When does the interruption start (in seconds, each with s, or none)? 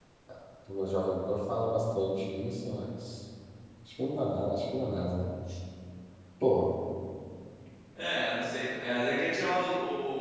none